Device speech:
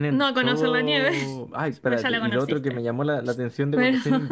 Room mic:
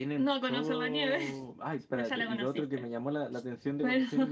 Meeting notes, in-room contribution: none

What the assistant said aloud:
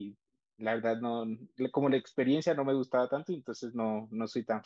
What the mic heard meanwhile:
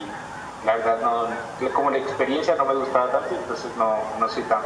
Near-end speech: none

